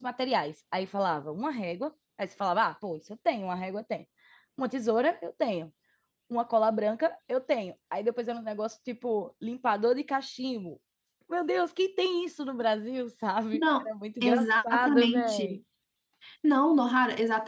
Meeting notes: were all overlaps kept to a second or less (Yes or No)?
No